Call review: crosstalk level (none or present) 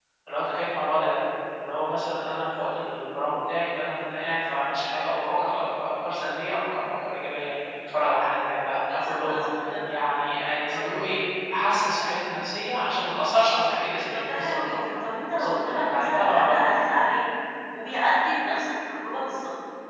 present